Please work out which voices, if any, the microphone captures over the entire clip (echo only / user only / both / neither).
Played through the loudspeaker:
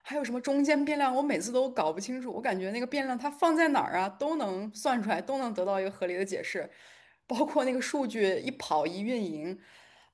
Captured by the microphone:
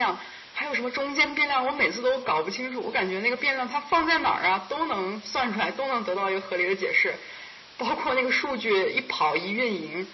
echo only